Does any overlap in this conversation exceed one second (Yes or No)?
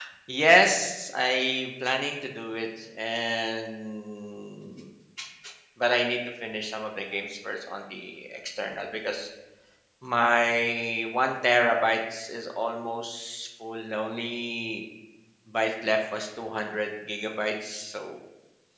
No